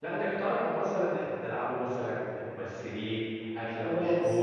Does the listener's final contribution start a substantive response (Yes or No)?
Yes